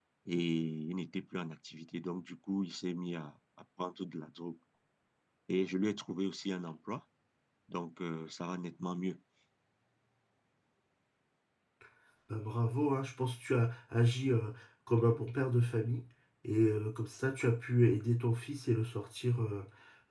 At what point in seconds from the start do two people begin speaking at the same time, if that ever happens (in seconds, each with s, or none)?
none